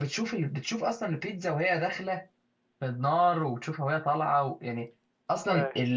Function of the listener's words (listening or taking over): listening